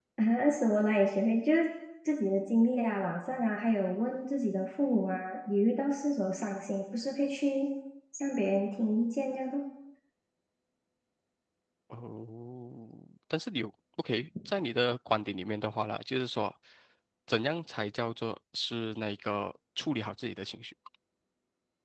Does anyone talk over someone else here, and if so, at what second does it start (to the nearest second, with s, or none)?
none